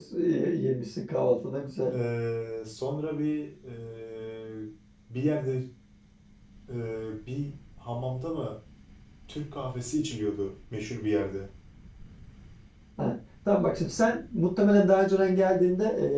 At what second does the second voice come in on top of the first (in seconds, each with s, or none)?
none